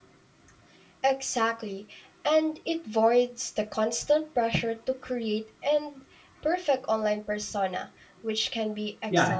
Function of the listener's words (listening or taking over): taking over